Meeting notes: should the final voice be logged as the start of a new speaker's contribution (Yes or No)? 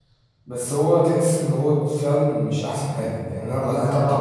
No